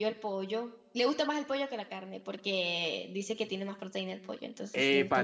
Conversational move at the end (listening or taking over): taking over